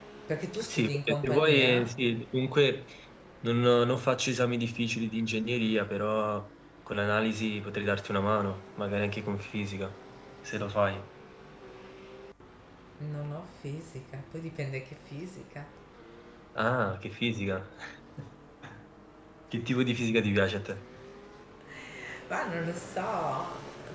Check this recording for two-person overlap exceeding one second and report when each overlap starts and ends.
0.6-2.0

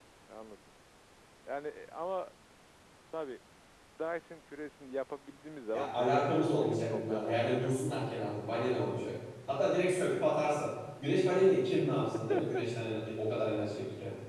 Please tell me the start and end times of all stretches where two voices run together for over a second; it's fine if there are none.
5.7-7.7

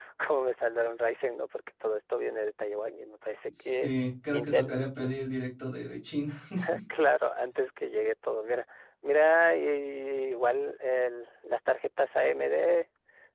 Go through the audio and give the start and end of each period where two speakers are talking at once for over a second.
none

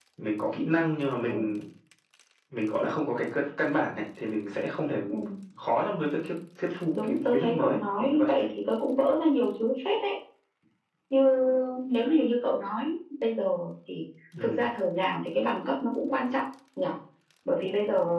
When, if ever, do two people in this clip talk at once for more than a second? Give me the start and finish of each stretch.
7.0-8.3

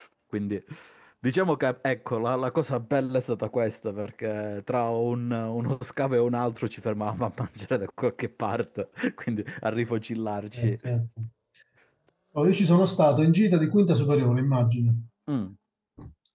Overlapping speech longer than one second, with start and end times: none

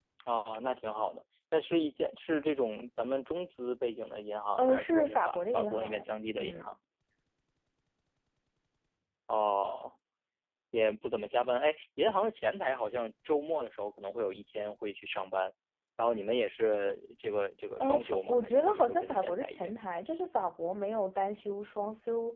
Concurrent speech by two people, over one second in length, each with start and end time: 4.5-6.7, 17.8-19.7

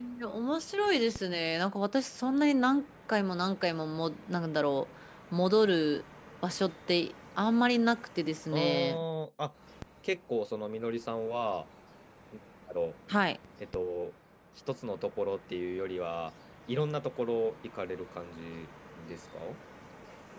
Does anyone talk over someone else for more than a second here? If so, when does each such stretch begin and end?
none

